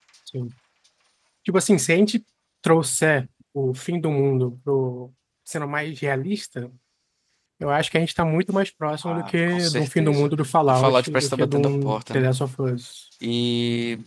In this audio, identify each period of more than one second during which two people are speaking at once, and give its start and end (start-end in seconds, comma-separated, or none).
9.0-10.3, 10.7-12.3